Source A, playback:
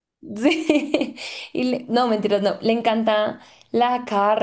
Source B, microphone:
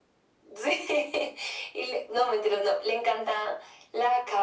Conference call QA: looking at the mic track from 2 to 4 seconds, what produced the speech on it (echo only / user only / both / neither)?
echo only